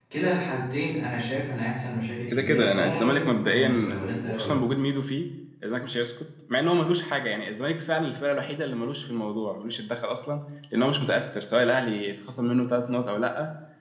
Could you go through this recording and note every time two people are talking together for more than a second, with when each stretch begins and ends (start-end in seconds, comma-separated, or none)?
2.3-4.6